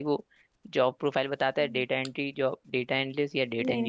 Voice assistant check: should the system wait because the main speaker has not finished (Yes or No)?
No